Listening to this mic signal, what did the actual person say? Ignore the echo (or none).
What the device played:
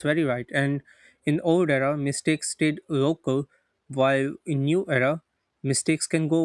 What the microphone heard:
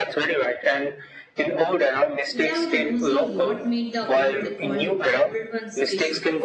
without losing what made the old on old one special.